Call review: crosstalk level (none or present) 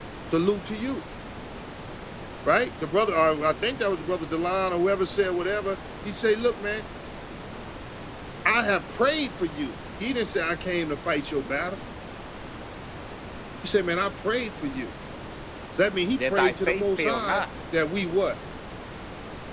present